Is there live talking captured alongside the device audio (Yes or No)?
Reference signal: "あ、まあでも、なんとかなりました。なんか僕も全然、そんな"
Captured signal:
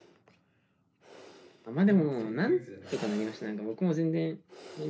Yes